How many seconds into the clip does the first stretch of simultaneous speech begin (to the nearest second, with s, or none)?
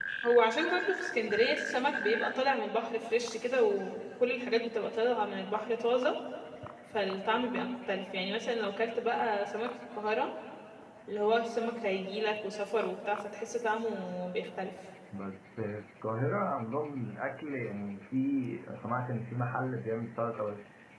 none